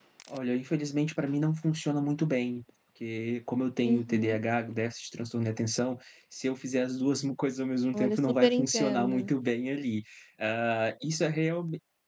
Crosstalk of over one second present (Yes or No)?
Yes